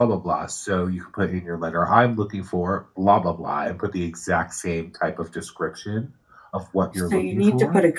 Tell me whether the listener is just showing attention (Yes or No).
No